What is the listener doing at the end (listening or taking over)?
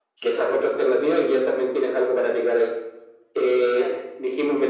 listening